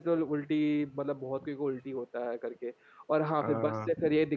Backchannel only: Yes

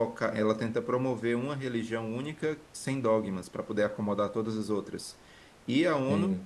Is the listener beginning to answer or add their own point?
No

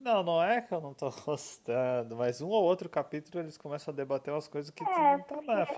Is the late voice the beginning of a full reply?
Yes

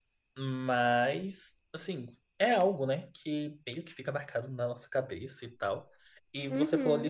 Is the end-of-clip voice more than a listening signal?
No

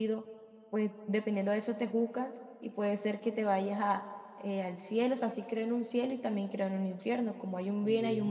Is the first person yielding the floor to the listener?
No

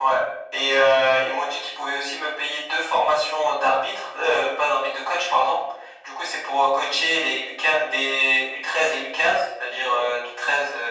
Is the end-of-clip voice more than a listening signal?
No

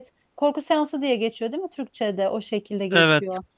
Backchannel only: Yes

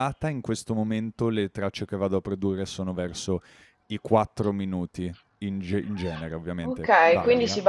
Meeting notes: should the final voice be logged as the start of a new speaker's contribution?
Yes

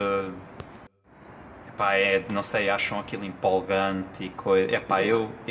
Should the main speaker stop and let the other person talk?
Yes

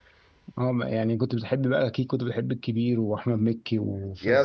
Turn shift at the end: Yes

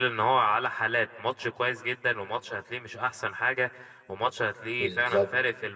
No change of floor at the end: Yes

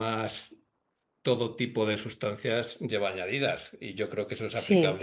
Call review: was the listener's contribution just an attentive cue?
Yes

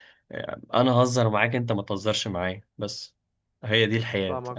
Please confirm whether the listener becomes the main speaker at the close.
Yes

